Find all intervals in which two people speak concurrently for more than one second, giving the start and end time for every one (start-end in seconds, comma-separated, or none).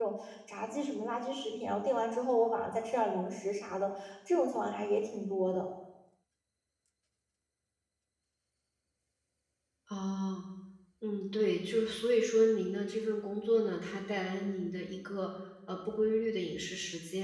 none